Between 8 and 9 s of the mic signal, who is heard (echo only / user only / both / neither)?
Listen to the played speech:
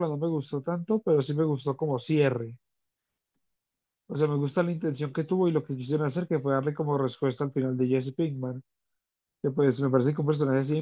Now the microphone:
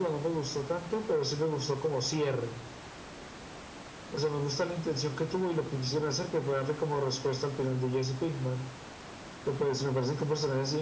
echo only